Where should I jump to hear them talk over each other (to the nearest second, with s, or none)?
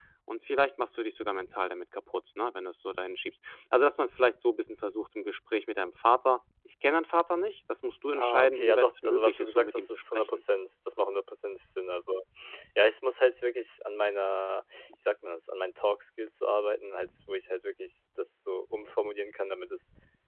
8 s